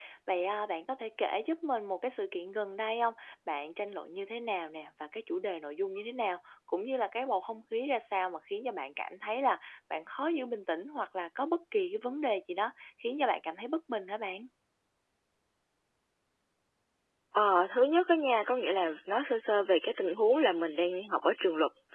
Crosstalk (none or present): none